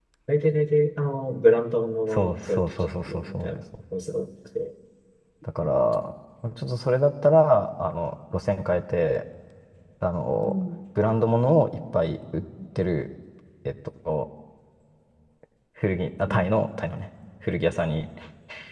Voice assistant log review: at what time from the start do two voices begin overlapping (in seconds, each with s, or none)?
2.1 s